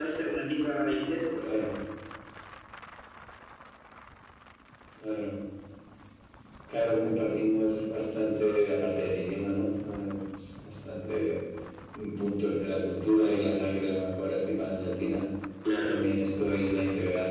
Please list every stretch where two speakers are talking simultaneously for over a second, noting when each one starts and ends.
none

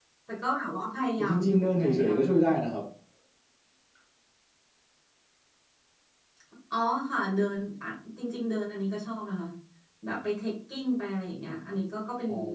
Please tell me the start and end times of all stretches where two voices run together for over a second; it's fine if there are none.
1.2-2.6

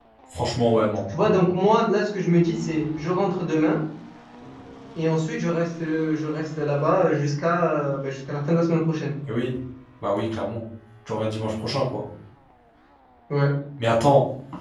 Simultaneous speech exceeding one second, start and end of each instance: none

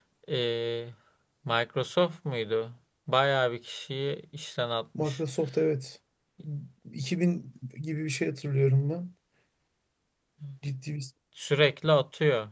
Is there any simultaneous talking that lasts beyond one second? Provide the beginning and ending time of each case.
none

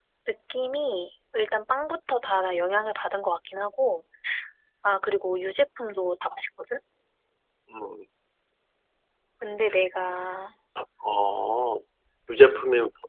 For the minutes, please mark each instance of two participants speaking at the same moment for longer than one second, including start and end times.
none

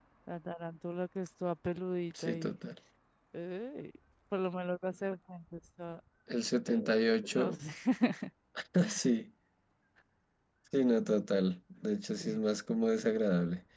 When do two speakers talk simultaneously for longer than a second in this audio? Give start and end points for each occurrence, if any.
none

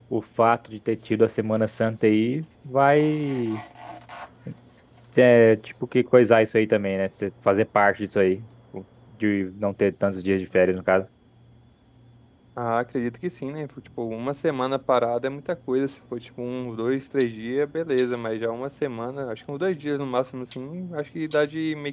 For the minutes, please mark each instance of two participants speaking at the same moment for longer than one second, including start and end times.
none

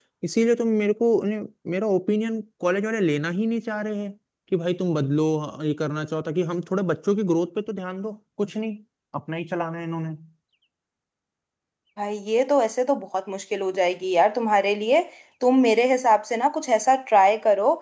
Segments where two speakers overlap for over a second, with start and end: none

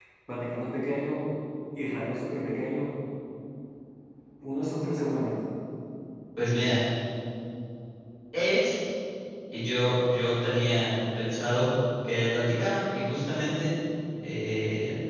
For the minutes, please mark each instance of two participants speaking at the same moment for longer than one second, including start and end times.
none

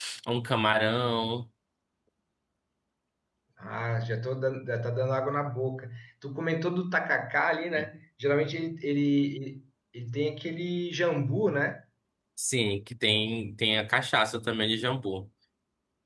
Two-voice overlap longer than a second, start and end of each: none

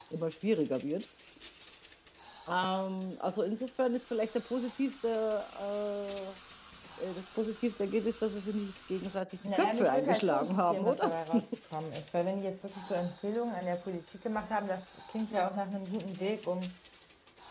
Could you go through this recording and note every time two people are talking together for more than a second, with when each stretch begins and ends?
9.6-11.1

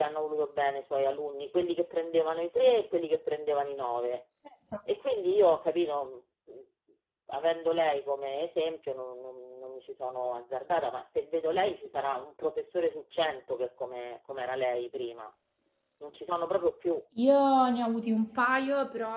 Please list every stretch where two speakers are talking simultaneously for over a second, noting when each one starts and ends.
none

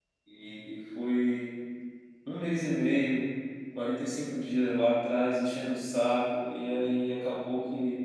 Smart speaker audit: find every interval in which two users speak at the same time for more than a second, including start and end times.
none

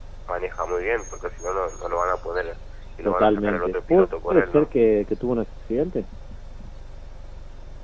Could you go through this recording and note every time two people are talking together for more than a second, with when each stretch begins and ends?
3.0-4.7

